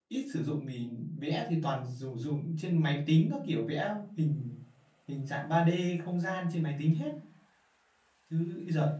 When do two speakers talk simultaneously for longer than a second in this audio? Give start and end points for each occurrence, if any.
none

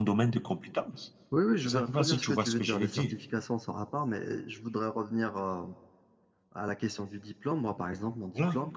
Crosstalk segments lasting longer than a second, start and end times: 1.6-3.1

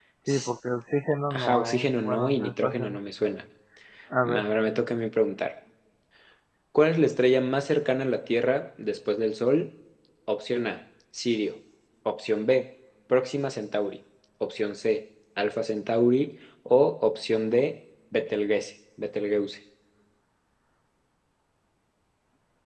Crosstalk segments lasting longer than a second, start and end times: 1.3-3.0

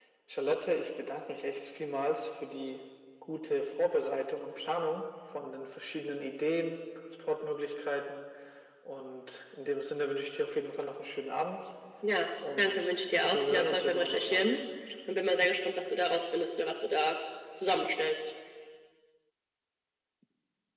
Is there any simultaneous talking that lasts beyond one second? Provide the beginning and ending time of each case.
12.6-14.5

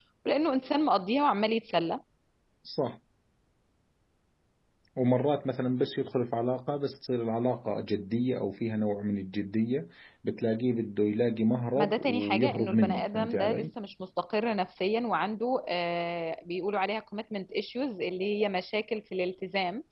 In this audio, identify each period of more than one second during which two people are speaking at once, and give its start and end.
11.8-13.7

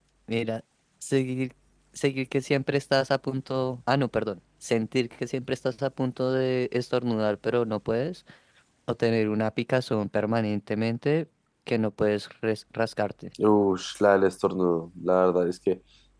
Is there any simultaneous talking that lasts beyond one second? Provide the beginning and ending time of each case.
none

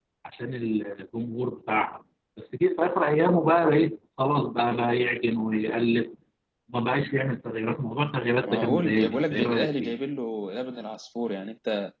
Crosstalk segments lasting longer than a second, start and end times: 8.5-10.0

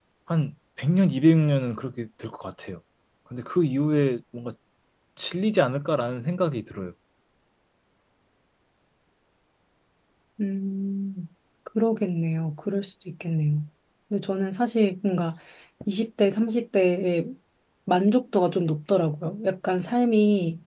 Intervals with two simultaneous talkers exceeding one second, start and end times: none

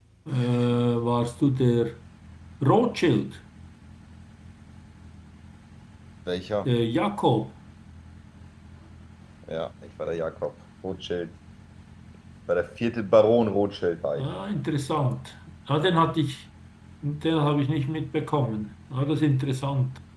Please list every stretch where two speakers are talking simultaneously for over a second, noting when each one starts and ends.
none

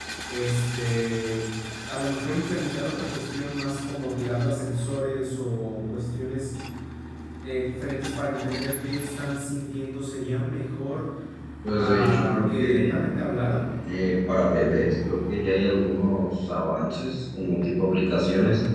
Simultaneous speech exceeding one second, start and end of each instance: 11.8-13.0

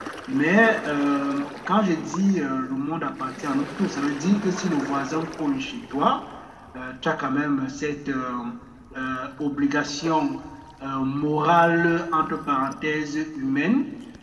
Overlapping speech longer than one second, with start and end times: none

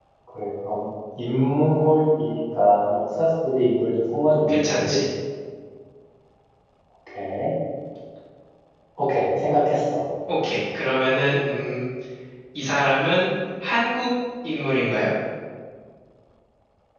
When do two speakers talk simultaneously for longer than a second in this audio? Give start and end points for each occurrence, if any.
none

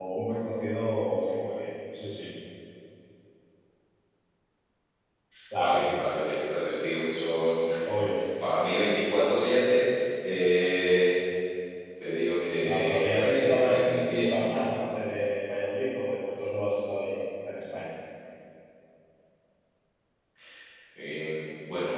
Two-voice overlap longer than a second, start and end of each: 12.6-14.3

